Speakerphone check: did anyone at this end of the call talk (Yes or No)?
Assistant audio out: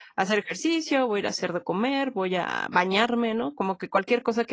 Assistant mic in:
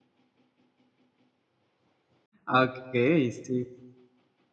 Yes